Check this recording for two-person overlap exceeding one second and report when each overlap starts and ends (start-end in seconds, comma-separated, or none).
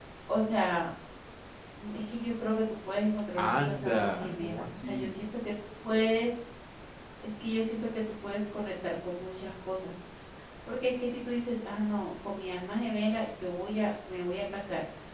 3.4-5.2